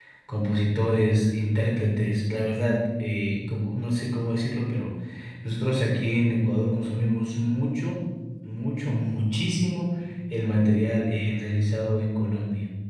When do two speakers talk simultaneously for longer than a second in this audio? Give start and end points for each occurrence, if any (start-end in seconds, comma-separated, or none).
none